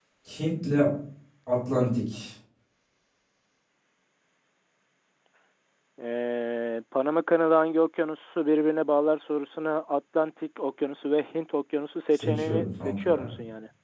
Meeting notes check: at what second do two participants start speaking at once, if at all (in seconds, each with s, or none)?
12.1 s